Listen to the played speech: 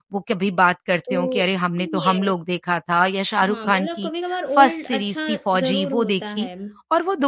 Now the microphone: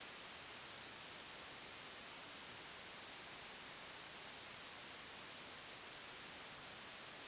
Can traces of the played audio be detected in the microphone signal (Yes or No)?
No